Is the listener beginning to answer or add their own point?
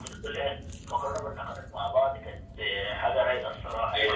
Yes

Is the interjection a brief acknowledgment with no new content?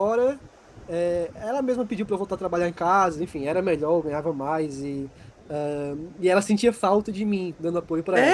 No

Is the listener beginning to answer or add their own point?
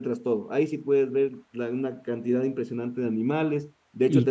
No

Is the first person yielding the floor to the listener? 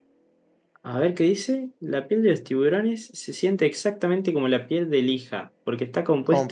No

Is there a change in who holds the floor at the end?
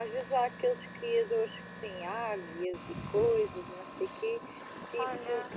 No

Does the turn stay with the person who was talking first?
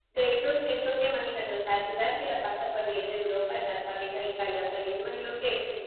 Yes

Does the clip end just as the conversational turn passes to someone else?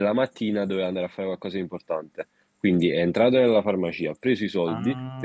No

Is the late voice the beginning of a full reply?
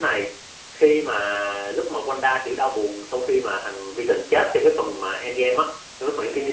Yes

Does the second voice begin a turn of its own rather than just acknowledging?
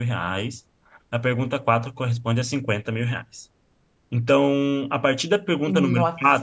No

